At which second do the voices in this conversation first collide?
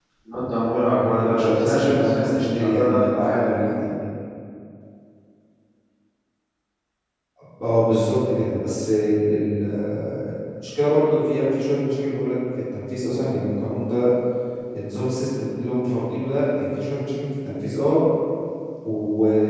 1.1 s

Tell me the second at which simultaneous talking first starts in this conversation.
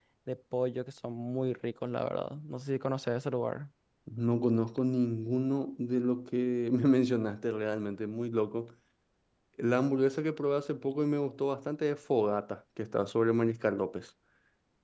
none

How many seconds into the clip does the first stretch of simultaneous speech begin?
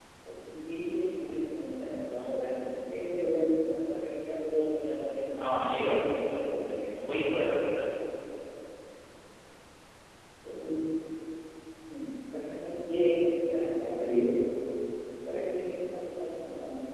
5.3 s

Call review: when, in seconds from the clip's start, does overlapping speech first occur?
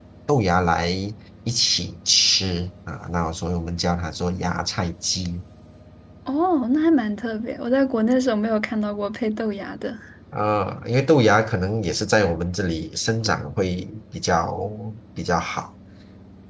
none

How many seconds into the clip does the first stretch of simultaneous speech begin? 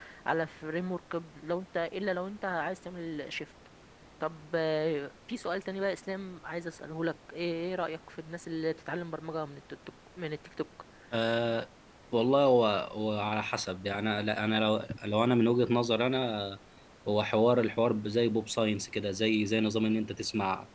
none

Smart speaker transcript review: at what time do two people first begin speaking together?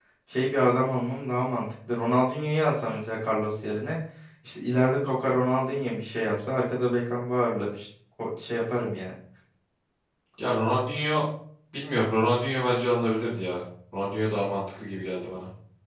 none

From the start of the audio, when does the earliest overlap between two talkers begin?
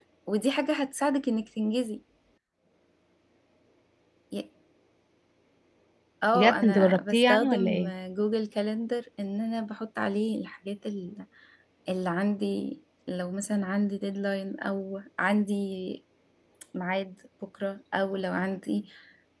6.3 s

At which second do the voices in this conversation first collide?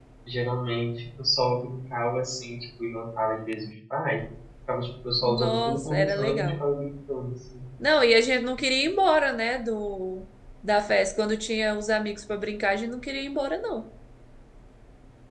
5.2 s

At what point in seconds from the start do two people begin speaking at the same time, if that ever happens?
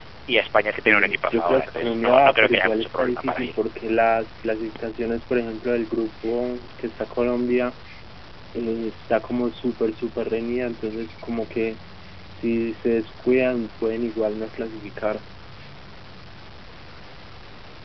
0.8 s

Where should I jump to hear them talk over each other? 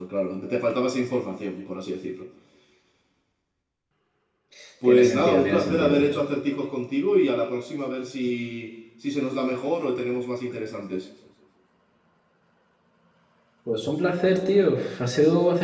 4.8 s

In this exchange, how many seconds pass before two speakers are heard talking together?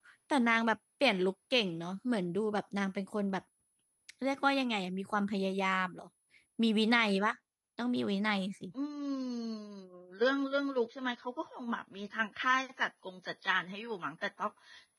none

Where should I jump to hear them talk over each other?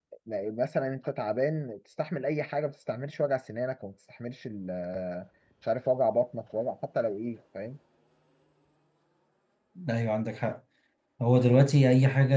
none

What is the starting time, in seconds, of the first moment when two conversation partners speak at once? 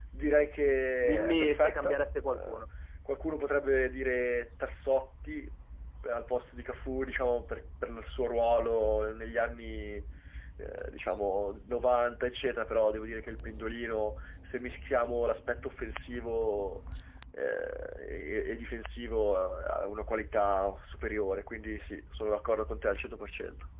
1.0 s

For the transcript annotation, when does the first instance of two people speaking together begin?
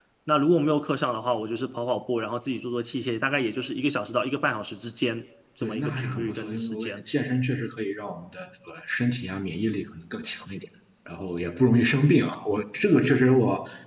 5.6 s

